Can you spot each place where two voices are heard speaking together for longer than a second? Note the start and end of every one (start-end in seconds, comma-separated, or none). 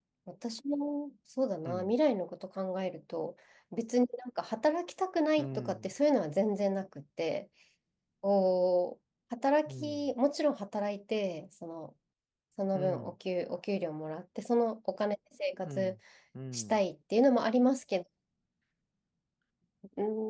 none